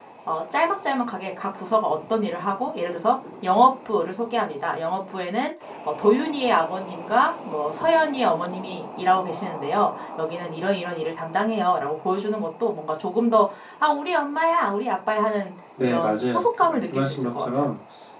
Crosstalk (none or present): present